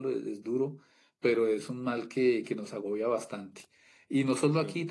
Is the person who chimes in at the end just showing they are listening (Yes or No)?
Yes